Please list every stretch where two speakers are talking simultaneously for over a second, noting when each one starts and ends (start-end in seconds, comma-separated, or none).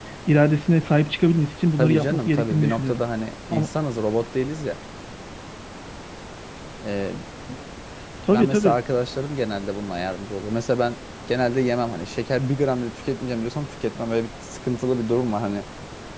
1.8-3.0